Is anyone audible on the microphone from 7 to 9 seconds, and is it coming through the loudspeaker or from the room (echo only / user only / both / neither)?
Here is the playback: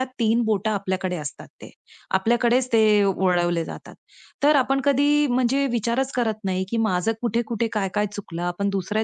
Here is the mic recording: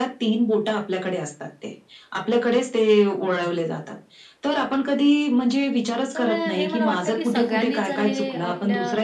both